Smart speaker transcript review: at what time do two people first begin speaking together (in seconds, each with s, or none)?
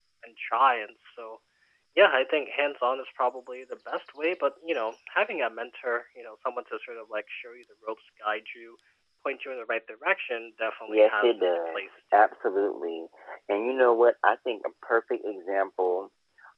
10.9 s